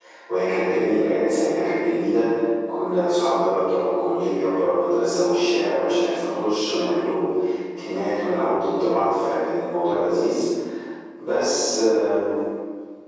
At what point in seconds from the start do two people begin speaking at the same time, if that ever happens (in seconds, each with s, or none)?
none